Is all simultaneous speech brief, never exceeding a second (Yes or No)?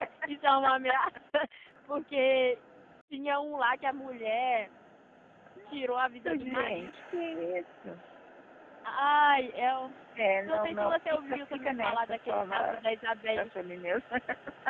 No